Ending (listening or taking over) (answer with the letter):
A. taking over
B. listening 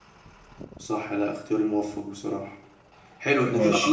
B